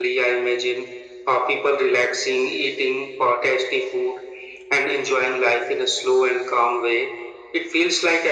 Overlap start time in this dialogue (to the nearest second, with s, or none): none